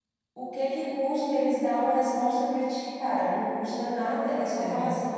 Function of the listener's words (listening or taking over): listening